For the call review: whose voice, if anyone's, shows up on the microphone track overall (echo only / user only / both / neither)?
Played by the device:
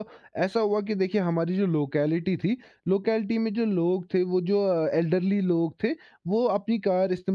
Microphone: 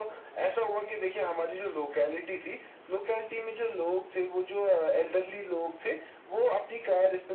echo only